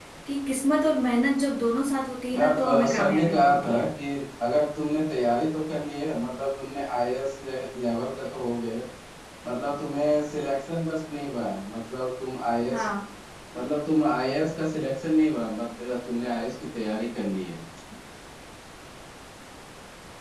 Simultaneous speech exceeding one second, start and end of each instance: 2.3-3.9

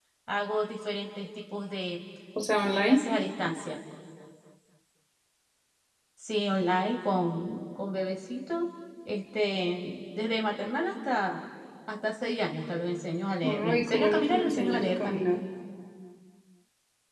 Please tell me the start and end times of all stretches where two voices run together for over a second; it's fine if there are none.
13.4-15.2

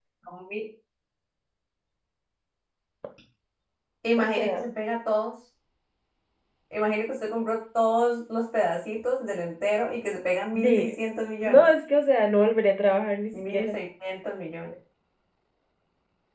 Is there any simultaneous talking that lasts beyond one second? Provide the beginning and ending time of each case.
none

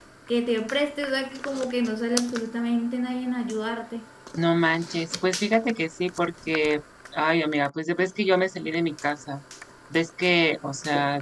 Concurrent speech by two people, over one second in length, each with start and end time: none

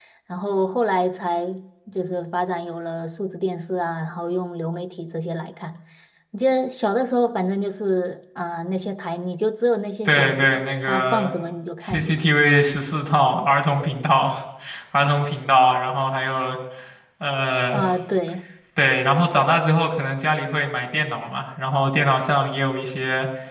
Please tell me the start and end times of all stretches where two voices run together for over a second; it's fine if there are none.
10.1-11.3

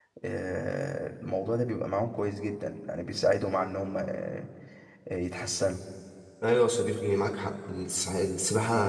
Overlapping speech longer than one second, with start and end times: none

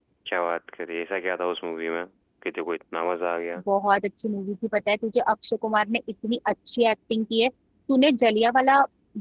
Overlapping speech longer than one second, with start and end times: none

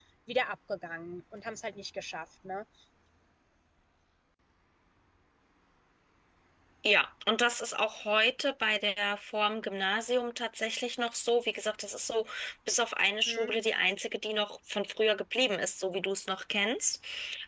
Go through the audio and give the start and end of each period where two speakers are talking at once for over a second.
none

